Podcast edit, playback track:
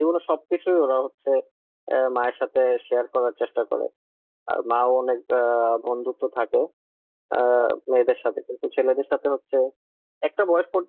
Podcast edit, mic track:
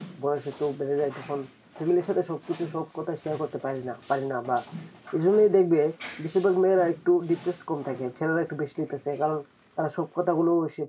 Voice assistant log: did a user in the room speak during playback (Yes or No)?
Yes